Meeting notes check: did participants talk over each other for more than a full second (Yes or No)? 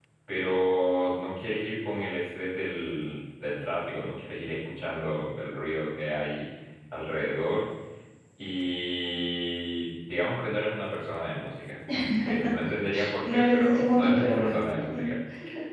Yes